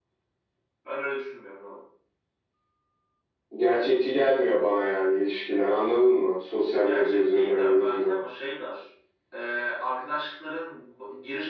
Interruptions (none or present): present